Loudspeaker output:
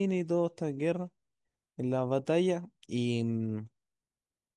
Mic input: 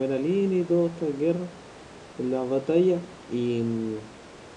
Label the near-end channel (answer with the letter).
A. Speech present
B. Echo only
B